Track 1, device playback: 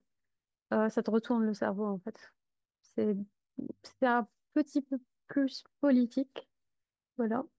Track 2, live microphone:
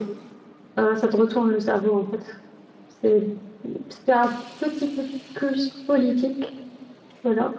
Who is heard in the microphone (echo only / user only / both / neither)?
echo only